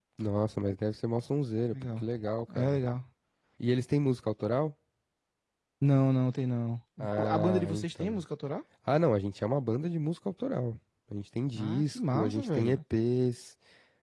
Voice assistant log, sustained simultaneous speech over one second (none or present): present